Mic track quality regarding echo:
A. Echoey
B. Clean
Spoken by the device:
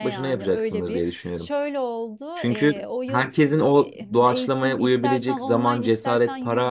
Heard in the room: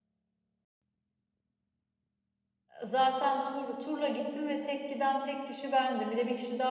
B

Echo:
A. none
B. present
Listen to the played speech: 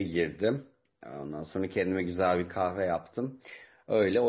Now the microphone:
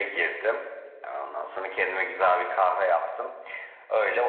B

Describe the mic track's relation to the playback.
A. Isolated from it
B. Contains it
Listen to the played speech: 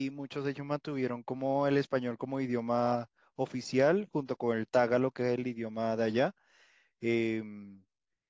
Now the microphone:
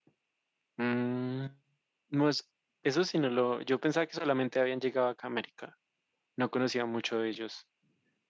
A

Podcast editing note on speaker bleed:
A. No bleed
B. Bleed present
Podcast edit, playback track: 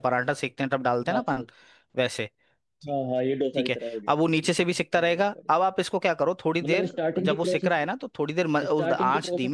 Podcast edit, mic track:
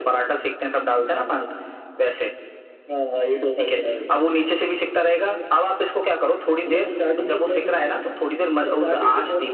B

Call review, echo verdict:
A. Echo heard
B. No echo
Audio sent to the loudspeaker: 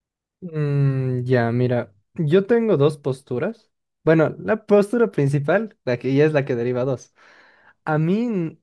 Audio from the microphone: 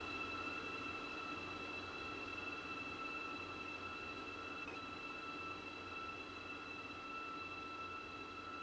B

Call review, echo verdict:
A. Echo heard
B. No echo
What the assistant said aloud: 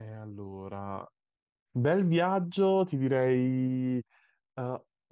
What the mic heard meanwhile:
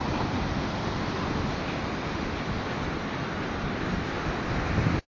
B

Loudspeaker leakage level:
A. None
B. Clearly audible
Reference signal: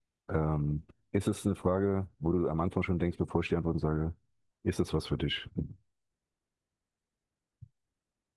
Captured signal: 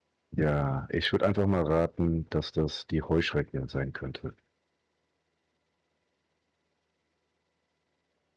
A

